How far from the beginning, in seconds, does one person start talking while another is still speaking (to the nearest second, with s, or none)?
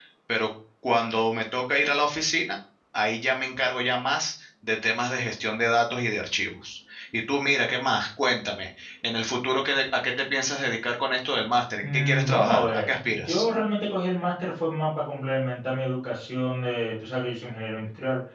12 s